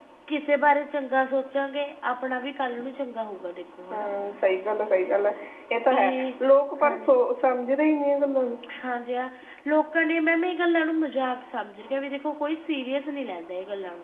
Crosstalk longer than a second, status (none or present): none